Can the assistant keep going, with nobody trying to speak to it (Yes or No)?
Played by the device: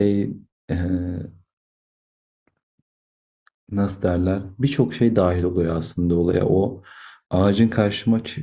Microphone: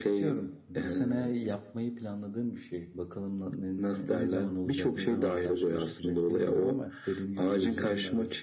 No